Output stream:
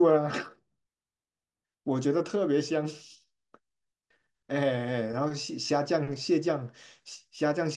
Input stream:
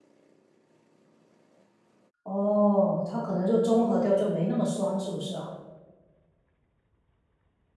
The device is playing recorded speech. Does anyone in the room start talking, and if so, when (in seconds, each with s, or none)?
2.2 s